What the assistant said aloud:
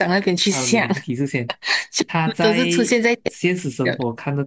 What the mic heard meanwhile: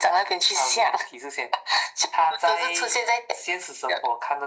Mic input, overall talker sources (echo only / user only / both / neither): echo only